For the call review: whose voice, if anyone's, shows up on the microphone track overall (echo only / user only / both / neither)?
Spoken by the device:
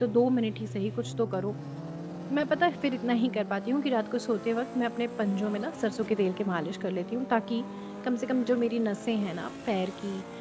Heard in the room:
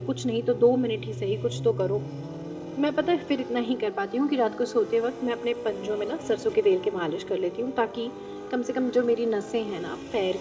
echo only